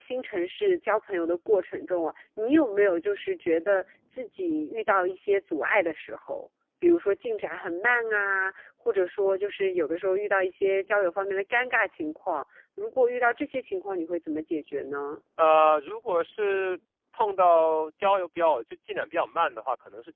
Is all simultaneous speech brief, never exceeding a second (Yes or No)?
Yes